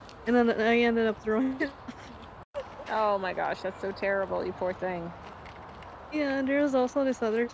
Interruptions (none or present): none